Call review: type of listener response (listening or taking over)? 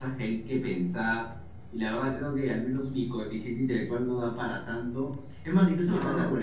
listening